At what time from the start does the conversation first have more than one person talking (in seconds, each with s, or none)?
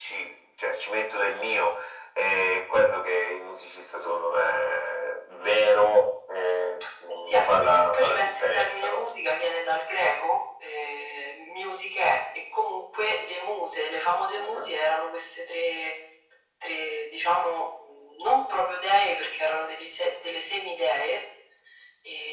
7.1 s